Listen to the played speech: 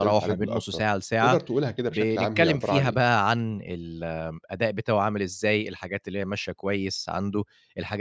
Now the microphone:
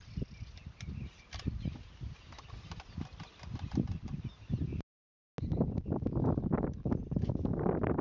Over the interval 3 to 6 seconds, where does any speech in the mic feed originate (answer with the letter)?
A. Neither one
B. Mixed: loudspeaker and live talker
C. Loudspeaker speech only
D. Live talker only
A